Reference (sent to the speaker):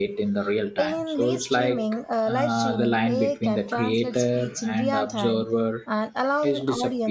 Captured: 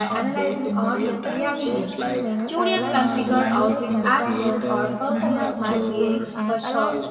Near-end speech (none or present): present